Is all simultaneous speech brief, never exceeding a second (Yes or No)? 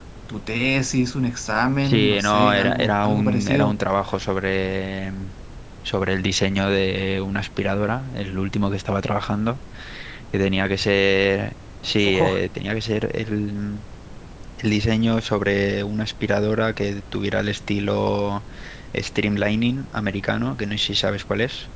No